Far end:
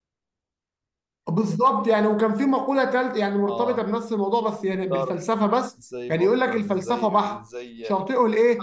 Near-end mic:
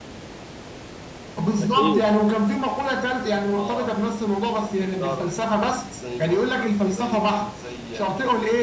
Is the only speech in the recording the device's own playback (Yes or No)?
No